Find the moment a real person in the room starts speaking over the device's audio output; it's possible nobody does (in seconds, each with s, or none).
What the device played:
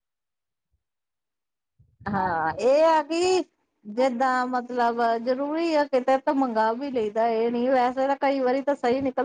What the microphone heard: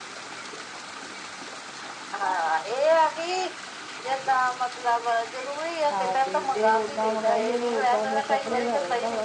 5.9 s